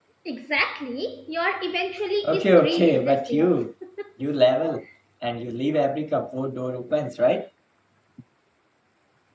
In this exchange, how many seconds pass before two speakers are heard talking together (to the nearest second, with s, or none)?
2 s